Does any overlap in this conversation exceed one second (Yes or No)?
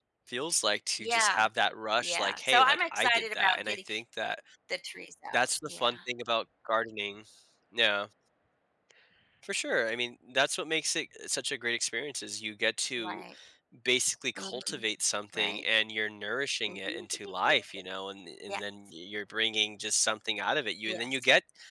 Yes